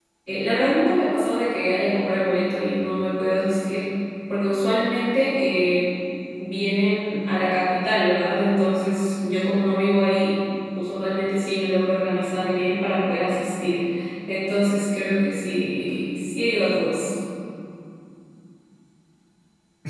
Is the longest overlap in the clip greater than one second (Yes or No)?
No